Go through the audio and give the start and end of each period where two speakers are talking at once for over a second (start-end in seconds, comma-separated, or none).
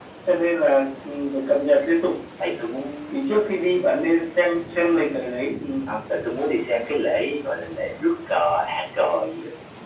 none